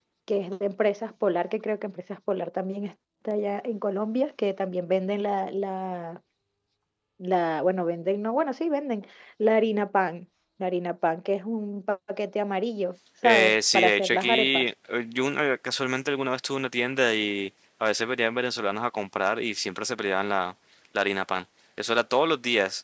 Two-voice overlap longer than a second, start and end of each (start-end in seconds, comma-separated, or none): 13.2-14.6